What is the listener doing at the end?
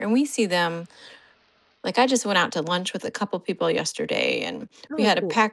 listening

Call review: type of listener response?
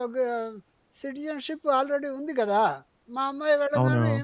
listening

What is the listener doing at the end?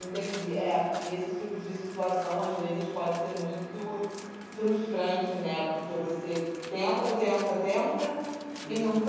listening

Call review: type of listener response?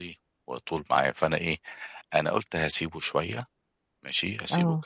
listening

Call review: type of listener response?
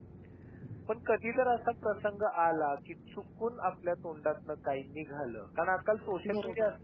listening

